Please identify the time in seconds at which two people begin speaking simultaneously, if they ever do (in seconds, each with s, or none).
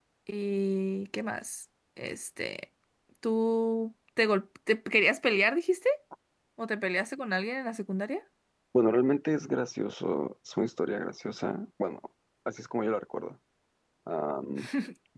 none